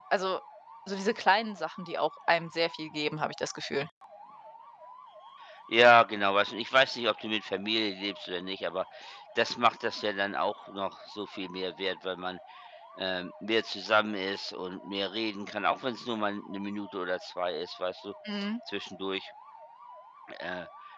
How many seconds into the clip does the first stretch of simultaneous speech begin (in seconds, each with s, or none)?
none